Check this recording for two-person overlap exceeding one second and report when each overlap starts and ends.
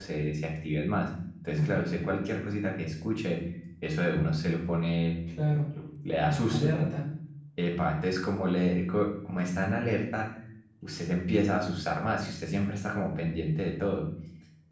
none

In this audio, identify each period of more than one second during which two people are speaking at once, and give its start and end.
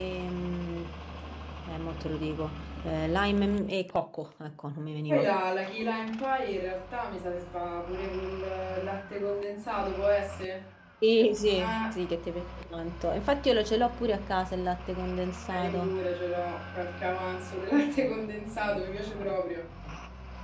none

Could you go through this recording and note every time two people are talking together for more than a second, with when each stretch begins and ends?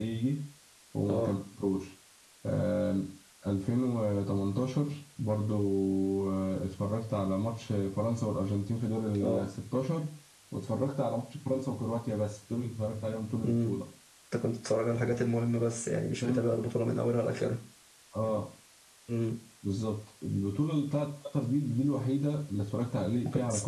none

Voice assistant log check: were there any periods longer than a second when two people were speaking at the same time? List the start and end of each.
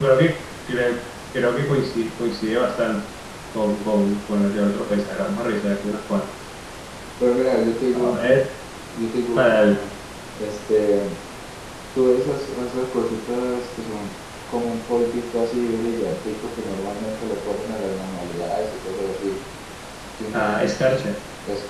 none

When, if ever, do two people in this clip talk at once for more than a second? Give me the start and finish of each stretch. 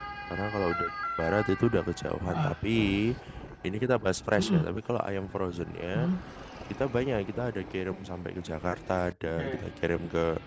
none

